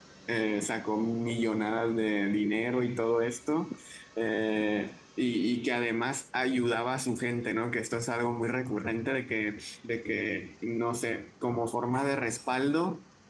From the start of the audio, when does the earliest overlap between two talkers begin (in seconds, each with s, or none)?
none